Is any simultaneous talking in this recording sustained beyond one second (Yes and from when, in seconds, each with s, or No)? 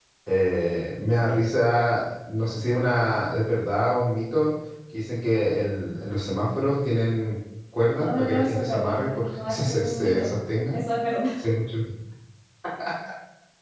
Yes, from 8.0 s